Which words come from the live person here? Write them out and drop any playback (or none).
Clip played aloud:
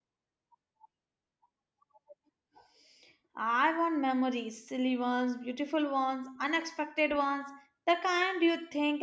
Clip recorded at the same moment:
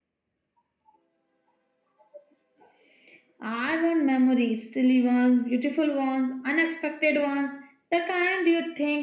none